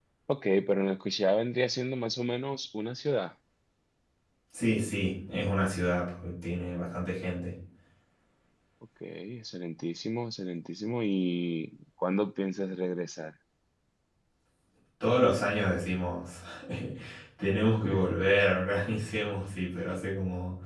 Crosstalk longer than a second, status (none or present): none